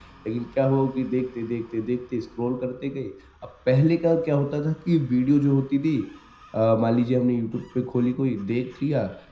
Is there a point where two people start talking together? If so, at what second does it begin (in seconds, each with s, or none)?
none